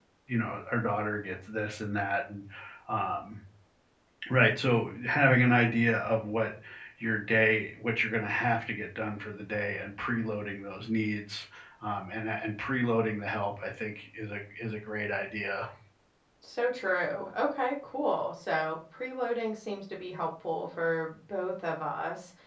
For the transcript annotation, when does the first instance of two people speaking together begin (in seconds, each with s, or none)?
none